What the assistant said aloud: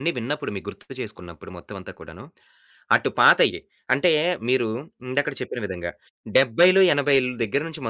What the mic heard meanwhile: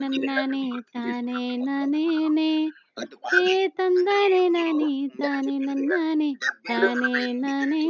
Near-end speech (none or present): present